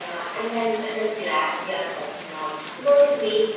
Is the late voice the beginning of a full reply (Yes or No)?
No